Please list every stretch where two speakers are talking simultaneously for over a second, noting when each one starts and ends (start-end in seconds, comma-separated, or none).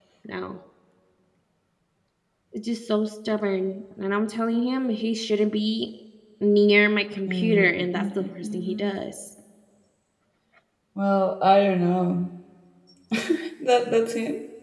7.3-8.9